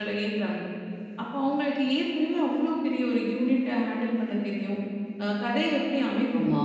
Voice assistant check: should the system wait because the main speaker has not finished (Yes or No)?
Yes